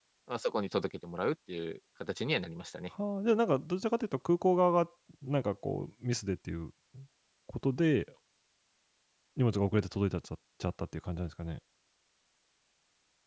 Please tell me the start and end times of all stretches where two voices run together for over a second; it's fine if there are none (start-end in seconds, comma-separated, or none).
none